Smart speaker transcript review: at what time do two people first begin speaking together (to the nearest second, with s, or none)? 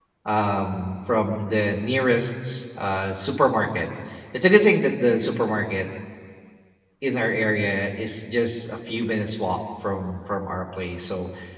none